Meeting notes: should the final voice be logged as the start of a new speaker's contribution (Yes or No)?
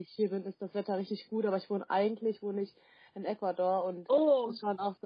No